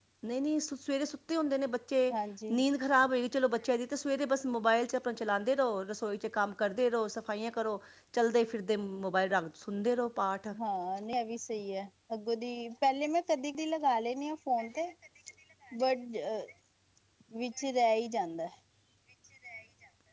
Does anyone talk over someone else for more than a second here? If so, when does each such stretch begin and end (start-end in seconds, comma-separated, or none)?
none